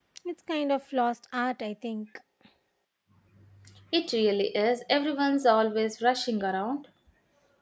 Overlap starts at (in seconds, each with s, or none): none